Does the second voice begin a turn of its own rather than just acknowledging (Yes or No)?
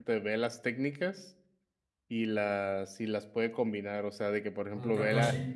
No